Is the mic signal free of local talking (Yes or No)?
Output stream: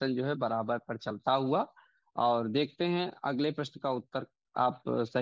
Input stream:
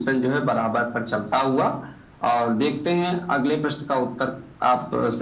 Yes